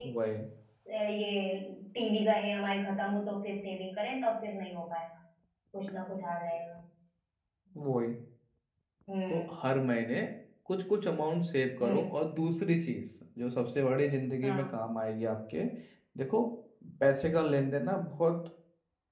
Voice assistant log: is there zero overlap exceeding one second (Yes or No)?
Yes